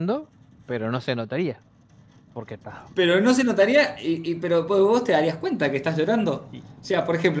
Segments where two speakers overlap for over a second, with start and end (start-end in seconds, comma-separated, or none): none